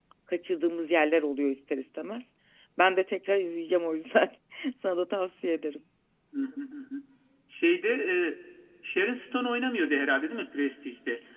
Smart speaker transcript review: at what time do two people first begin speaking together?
none

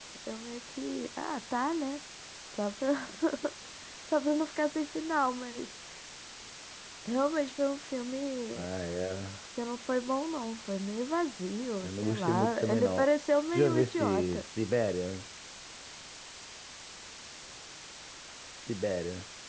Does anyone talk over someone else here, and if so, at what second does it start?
11.8 s

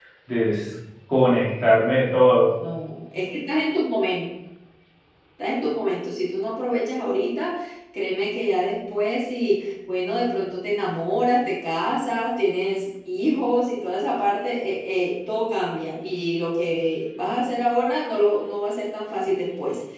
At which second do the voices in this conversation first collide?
none

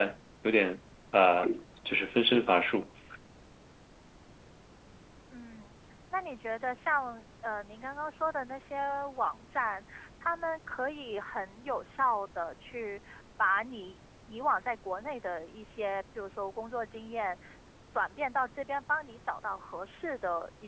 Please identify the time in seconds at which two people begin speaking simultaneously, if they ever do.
none

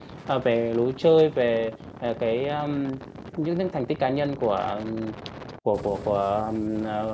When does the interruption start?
none

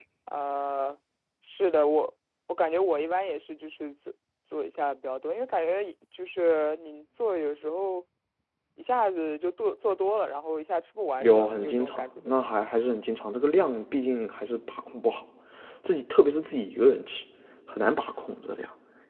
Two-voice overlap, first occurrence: 11.2 s

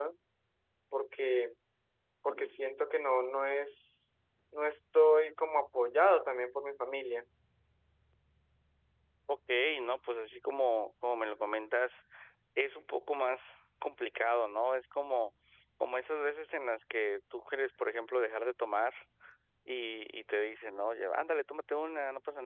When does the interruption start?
none

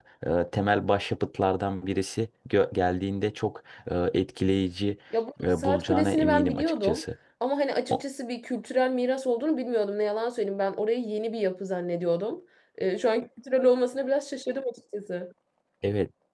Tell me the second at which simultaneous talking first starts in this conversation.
5.4 s

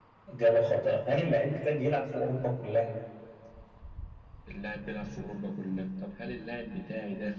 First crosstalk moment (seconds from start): none

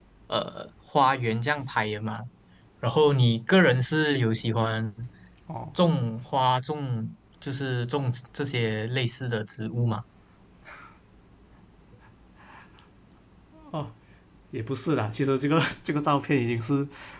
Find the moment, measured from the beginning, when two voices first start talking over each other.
none

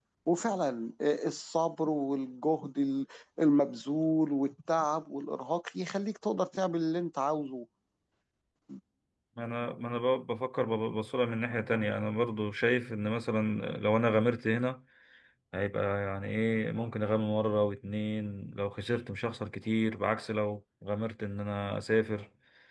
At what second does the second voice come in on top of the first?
none

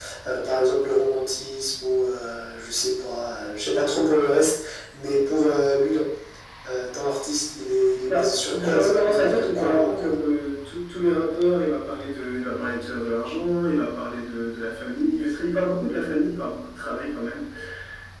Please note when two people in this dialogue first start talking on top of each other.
8.1 s

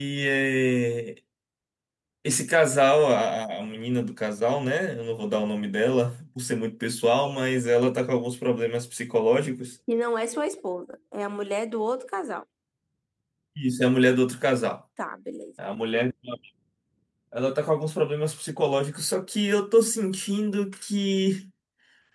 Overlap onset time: none

